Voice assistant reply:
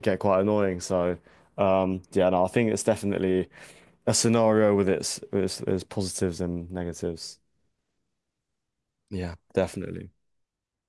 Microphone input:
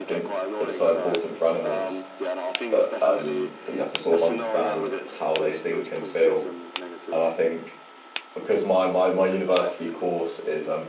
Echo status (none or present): present